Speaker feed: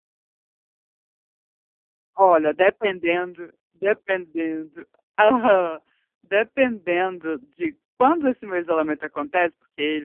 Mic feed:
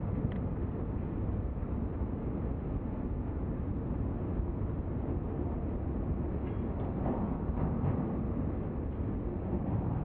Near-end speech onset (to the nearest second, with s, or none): none